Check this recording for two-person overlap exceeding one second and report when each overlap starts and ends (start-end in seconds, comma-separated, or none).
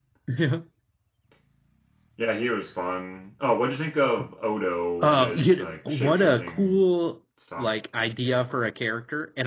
5.0-6.8